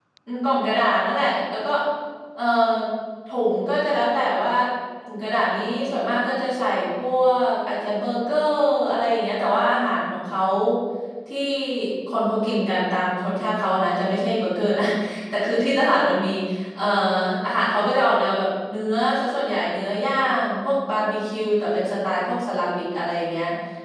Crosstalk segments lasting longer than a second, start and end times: none

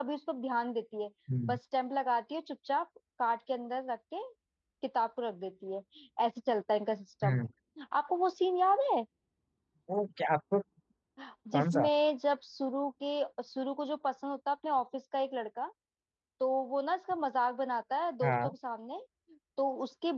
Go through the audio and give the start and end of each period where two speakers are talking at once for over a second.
none

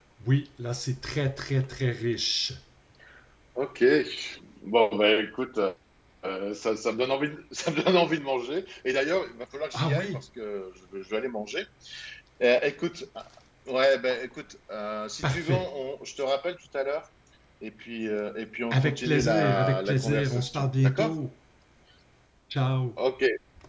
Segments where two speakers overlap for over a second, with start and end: 18.7-21.1

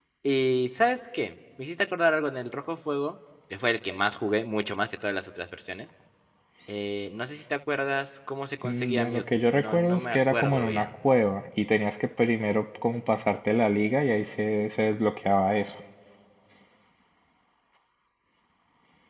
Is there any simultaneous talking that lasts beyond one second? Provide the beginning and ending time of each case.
8.6-10.9

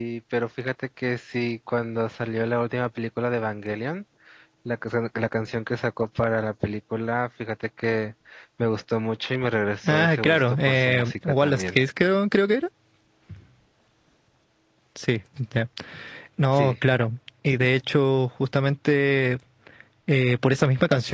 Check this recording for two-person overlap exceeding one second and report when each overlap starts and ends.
9.9-11.8

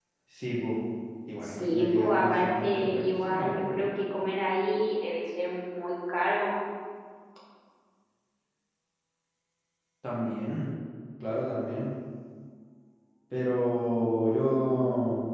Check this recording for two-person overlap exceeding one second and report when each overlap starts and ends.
1.4-3.8

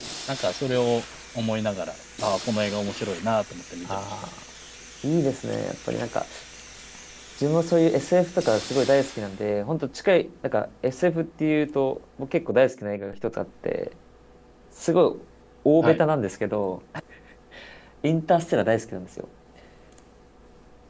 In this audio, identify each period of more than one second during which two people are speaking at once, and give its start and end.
none

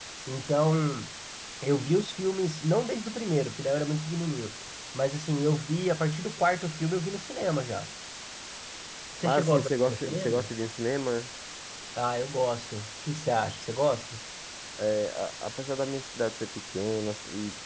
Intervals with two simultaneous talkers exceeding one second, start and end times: 9.2-10.5

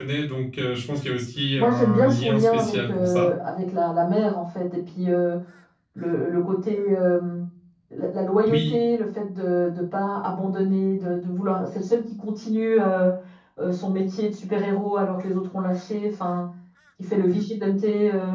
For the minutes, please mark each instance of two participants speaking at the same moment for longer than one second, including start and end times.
1.6-3.3

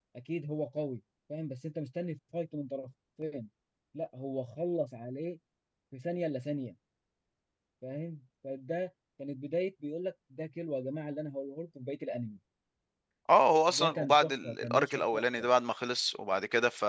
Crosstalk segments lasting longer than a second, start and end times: 13.7-15.5

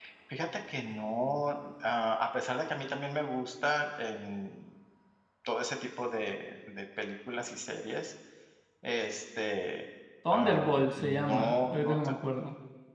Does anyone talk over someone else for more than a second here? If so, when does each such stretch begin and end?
10.3-12.1

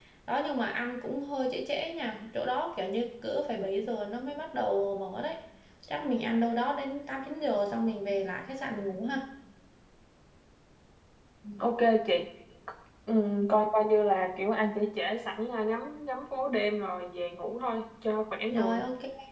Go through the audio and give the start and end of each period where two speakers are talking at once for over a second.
none

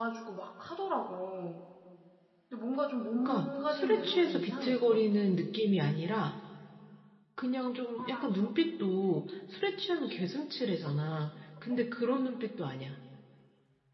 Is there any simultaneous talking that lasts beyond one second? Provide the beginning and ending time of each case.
3.1-5.1

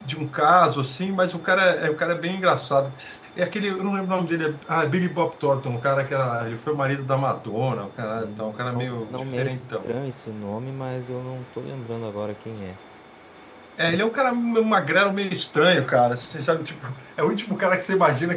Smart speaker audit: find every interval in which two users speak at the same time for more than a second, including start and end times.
8.2-9.9

